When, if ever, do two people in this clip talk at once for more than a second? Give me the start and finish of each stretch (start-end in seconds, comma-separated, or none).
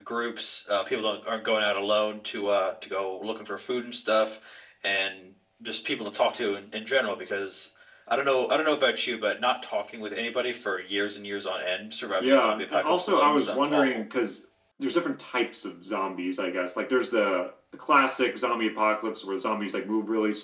12.2-14.0